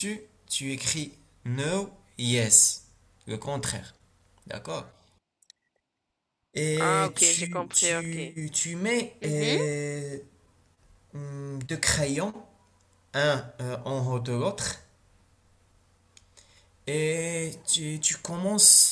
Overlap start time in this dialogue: 6.8 s

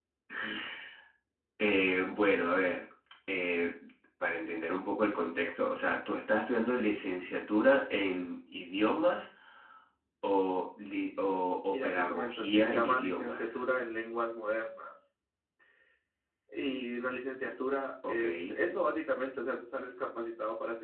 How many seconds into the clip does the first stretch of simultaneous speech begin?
11.7 s

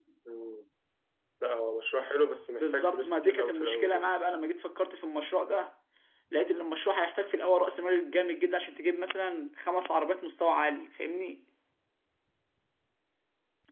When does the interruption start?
2.6 s

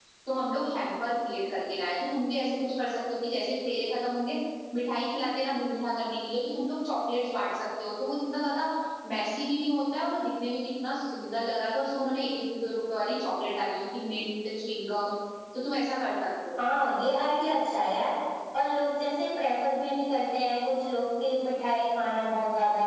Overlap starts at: none

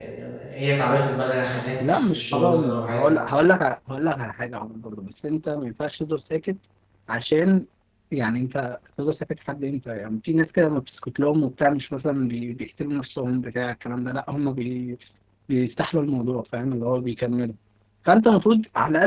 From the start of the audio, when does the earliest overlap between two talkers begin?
1.8 s

